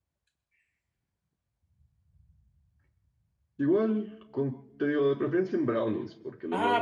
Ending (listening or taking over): taking over